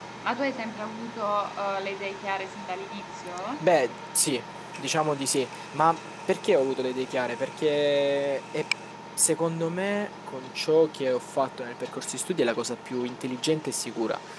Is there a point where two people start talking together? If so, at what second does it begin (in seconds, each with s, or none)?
none